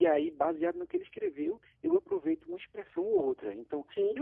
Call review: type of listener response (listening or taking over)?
listening